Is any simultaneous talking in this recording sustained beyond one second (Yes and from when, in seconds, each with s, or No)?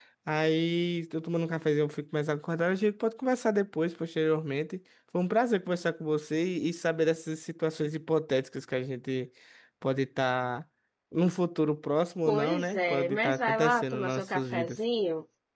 Yes, from 12.3 s